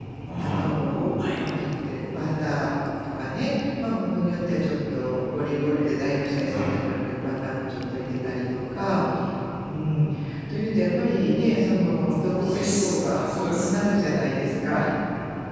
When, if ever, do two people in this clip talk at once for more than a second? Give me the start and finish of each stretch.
12.3-13.7

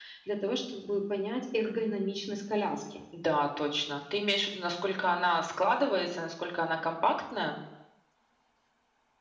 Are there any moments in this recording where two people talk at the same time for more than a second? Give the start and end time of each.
none

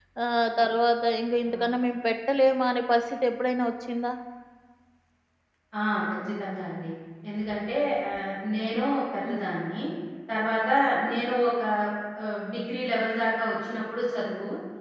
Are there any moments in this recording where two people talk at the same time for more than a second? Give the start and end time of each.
none

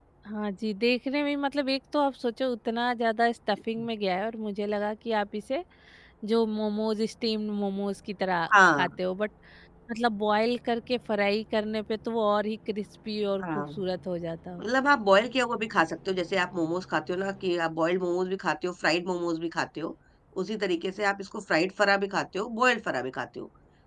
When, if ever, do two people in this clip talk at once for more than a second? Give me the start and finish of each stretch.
none

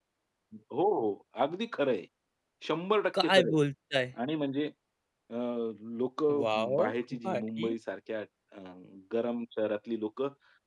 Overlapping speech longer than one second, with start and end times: 6.4-7.7

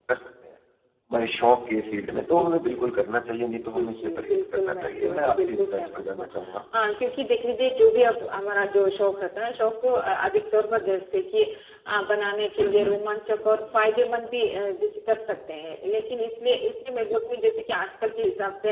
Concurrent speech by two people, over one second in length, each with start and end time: 3.7-6.3

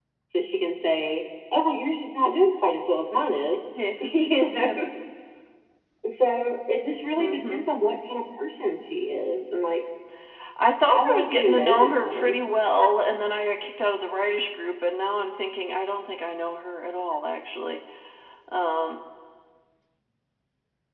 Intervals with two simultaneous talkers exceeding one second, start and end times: 10.9-12.4

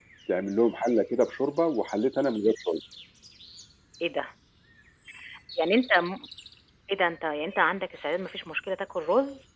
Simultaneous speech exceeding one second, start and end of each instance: none

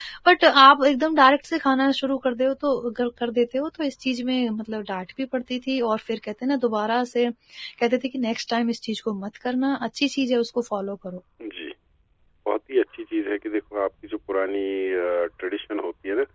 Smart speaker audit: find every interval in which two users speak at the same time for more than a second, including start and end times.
none

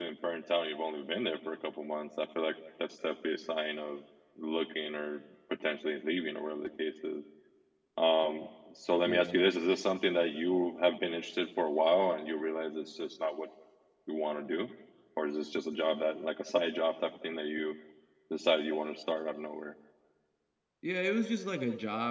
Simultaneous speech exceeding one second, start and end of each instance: none

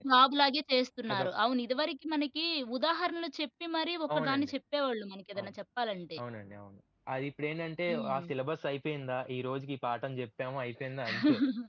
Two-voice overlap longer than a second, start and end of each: none

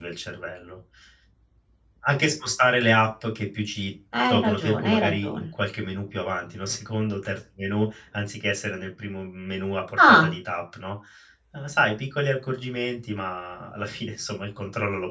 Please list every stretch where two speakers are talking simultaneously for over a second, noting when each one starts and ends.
4.2-5.5

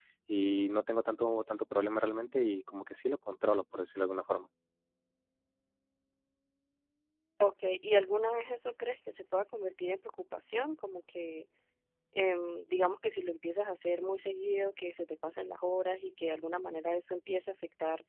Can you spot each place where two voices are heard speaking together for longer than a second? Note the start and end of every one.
none

